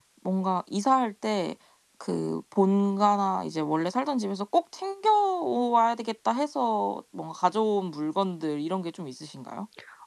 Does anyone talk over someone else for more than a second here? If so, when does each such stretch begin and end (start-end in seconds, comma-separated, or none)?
none